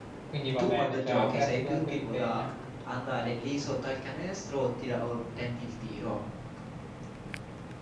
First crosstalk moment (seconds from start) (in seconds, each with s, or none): 0.6 s